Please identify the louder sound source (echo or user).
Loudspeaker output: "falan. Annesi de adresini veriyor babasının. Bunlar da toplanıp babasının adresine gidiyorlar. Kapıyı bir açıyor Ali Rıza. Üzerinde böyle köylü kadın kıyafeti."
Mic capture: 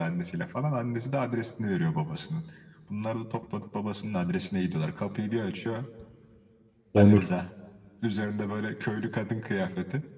user